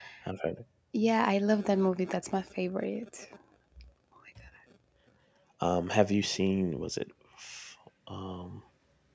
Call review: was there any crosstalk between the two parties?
No

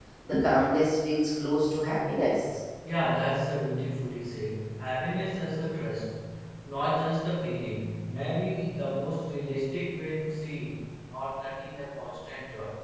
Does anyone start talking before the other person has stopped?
No

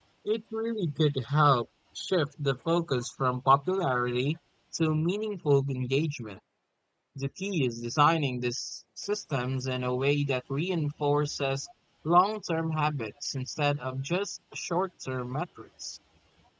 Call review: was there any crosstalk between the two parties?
No

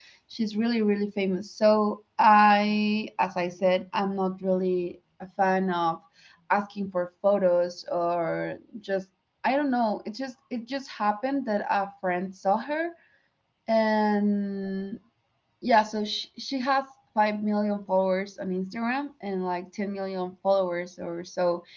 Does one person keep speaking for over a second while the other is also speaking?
No

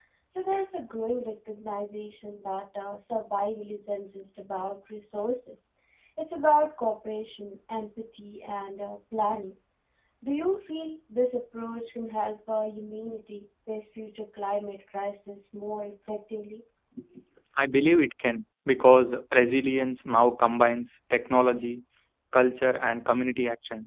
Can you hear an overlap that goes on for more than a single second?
No

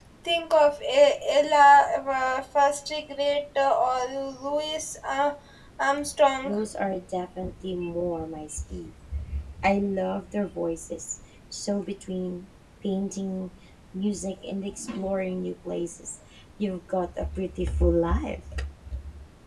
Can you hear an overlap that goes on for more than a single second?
No

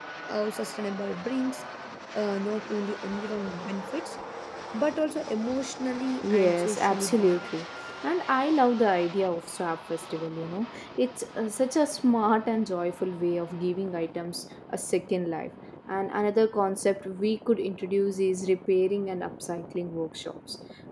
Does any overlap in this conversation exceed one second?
Yes, from 6.2 s

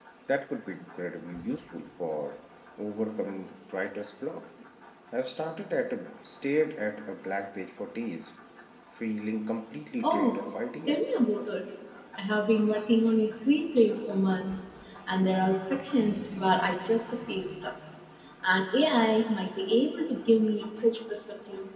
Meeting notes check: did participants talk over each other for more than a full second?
No

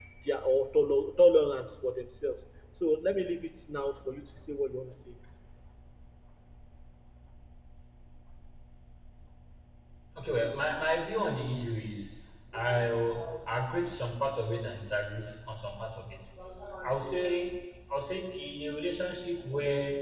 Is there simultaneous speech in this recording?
No

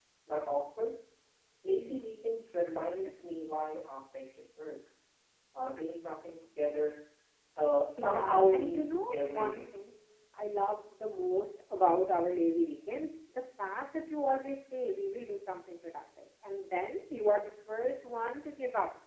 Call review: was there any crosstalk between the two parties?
Yes, from 8.0 s

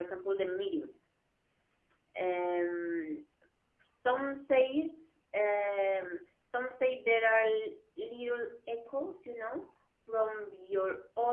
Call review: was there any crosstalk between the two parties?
No

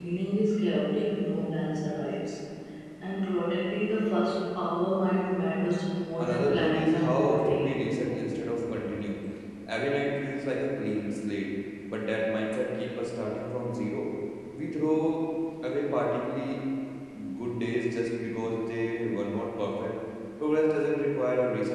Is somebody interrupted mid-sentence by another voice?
Yes, from 6.2 s

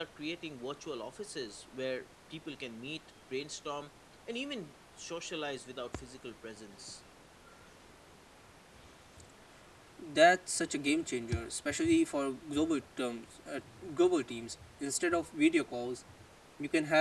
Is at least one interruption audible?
No

